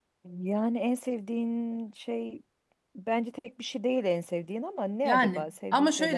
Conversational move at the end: taking over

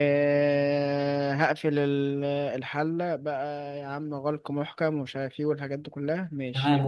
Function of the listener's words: taking over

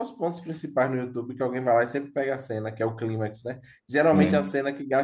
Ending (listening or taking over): listening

